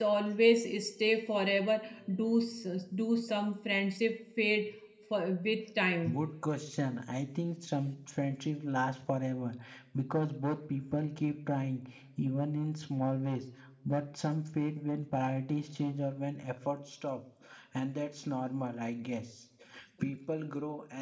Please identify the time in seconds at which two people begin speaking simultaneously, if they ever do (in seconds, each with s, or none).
none